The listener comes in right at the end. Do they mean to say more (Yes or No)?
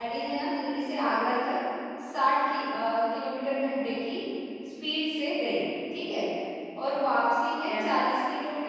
No